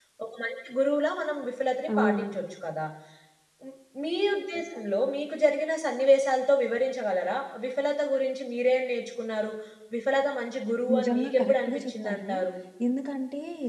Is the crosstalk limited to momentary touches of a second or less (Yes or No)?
No